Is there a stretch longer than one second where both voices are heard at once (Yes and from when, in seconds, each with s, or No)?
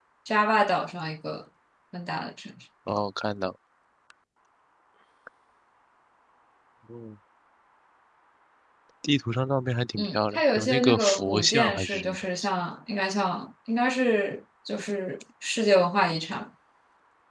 Yes, from 10.0 s